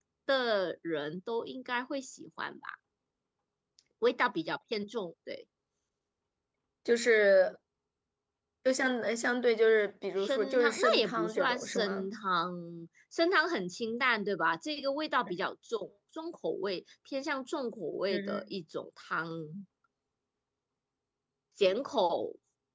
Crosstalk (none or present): present